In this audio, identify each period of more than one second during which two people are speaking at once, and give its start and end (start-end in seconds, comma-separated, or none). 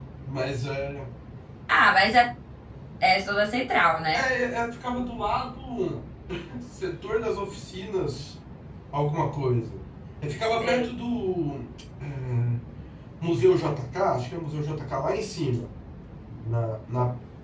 none